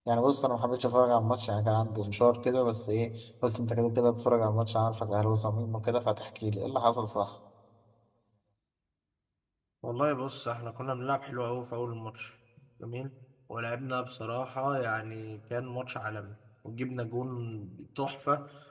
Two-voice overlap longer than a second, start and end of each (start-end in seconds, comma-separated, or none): none